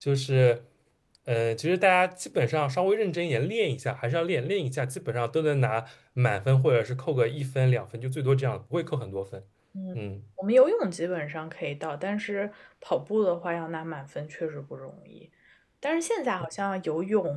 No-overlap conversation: Yes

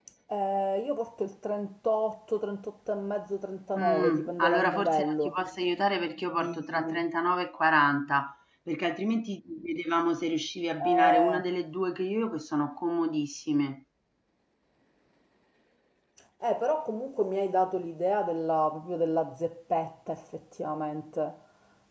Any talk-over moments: Yes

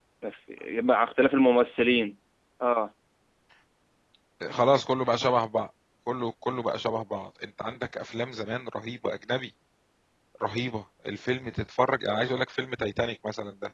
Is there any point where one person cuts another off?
No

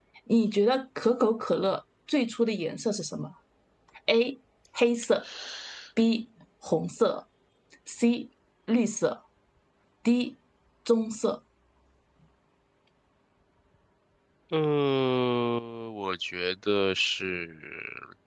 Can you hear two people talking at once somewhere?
No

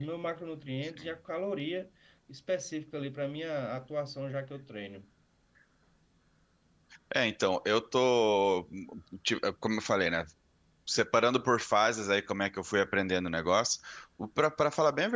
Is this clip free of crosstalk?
Yes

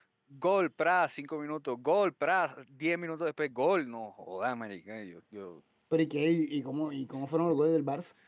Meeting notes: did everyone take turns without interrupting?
Yes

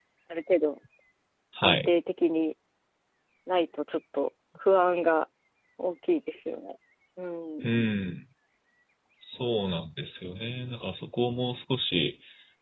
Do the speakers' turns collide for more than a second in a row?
No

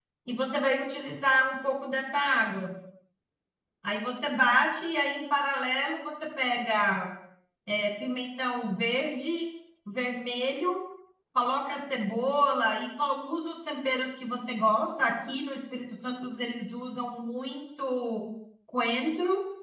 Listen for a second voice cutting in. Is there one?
No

